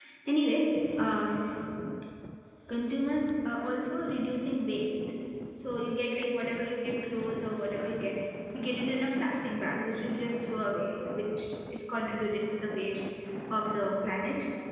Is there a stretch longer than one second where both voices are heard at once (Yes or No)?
No